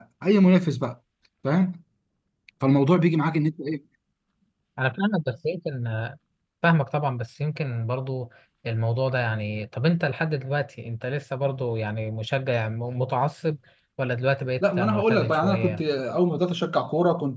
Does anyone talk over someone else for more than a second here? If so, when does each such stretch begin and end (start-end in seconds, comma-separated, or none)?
14.6-15.8